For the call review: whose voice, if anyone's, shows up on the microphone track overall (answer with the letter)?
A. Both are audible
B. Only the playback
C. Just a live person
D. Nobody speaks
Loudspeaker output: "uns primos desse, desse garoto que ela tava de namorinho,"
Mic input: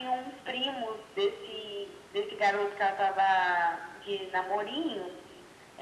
B